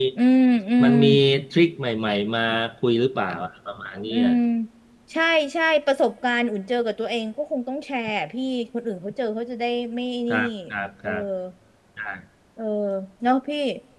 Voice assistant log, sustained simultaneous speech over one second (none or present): none